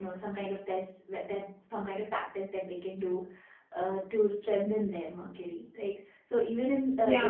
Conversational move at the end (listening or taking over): listening